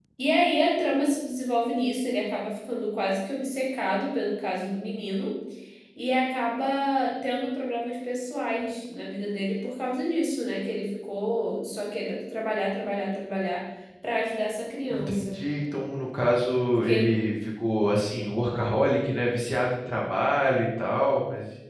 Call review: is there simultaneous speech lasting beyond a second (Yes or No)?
No